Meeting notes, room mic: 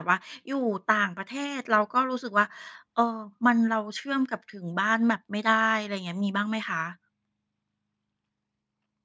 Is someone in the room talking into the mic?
Yes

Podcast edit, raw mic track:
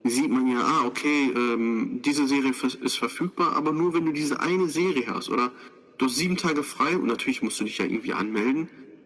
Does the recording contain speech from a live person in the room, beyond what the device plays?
No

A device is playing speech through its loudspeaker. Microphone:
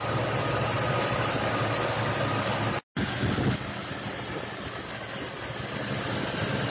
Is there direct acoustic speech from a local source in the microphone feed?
No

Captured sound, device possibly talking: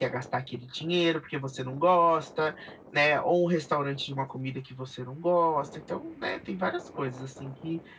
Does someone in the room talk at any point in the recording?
Yes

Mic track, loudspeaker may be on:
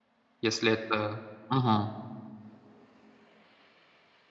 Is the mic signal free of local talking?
No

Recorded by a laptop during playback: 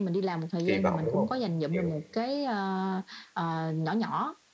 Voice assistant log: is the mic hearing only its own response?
No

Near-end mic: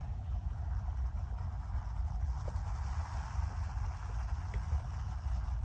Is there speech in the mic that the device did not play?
No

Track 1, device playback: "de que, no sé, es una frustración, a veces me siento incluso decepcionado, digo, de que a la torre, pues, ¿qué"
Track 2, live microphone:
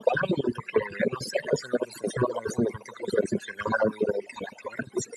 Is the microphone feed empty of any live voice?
Yes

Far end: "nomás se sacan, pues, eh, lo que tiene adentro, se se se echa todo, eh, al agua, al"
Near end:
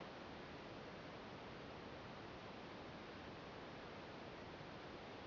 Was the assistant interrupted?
No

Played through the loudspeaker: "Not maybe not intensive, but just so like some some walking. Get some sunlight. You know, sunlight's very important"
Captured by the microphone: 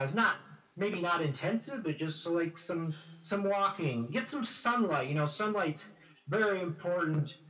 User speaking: No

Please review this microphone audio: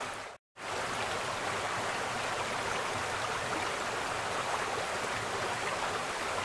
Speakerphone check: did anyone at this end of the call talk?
No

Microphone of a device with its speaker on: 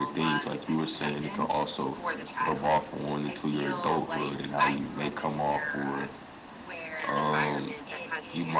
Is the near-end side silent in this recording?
No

